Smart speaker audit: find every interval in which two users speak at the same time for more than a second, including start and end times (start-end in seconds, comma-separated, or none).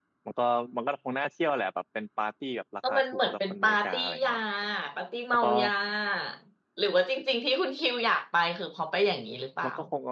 2.9-4.3